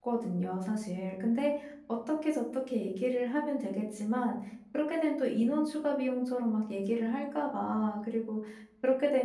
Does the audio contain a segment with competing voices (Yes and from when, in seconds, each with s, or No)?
No